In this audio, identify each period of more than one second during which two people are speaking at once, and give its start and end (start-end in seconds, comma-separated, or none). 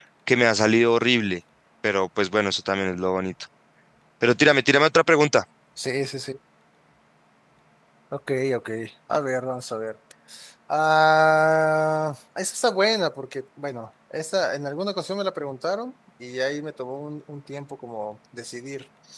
none